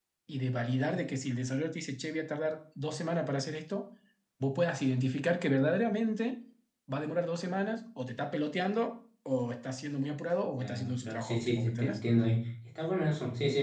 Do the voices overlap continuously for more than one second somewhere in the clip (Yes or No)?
Yes